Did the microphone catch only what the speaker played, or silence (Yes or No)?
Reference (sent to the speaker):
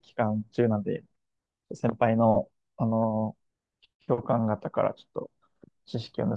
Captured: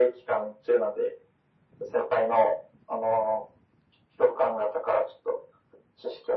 Yes